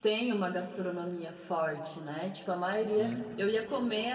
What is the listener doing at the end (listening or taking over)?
listening